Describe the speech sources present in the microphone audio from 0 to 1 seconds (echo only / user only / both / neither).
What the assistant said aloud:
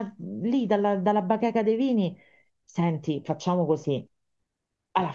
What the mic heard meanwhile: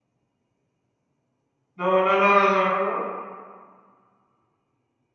neither